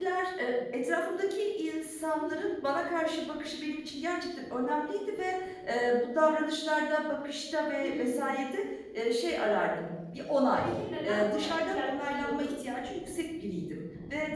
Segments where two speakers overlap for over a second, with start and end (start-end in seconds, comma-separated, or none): 11.0-12.6